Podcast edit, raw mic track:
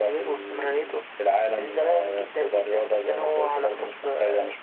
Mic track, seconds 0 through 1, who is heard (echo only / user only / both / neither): echo only